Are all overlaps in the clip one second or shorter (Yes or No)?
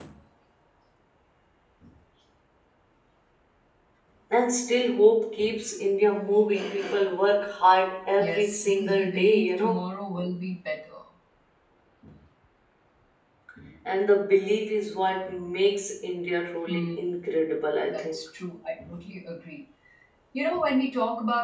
No